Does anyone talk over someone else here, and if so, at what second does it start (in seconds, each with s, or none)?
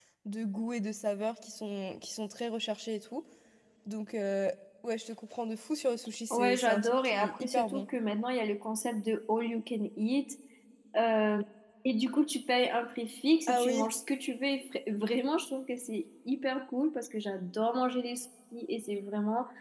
6.3 s